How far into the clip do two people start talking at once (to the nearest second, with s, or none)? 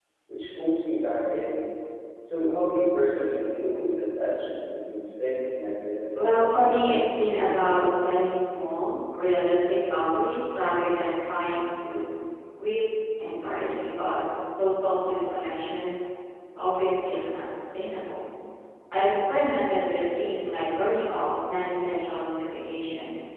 6 s